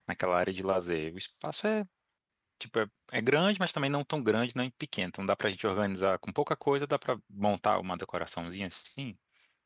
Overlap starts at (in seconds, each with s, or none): none